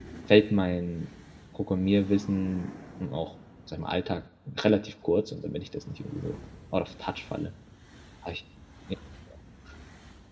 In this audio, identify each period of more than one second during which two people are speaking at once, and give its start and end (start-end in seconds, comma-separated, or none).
none